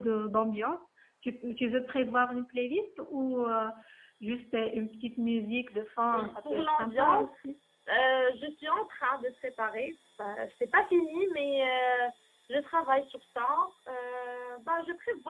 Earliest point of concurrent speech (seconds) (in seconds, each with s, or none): 6.1 s